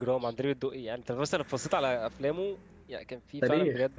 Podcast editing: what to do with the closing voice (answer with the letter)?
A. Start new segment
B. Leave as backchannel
A